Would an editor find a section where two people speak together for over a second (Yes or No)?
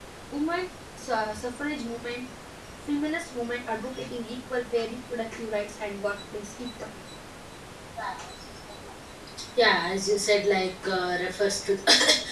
No